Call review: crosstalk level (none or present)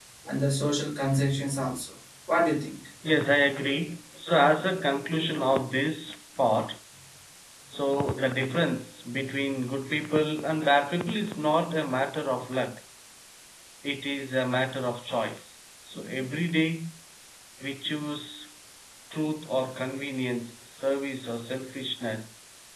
none